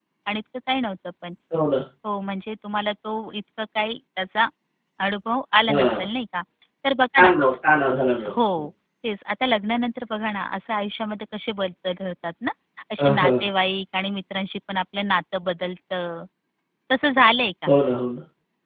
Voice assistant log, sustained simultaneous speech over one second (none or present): none